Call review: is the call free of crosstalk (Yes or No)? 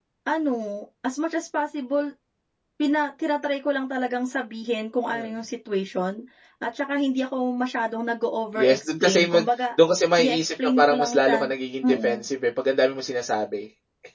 No